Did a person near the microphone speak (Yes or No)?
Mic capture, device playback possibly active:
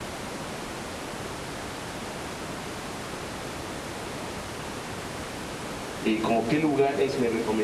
Yes